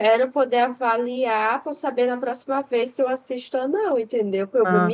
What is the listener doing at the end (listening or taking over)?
listening